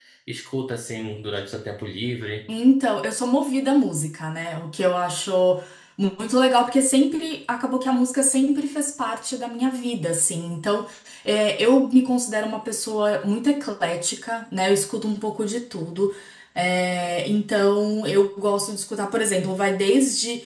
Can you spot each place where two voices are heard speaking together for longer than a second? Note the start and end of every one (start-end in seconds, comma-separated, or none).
none